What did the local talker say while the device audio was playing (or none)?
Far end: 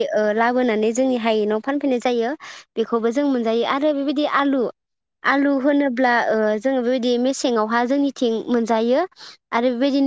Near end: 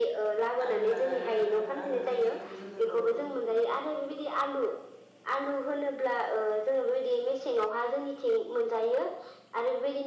आलु लानानै आलु आलु गिदिर खौ जोङो द